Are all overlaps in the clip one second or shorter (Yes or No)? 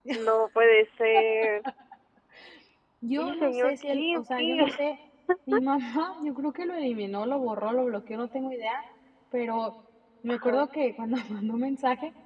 No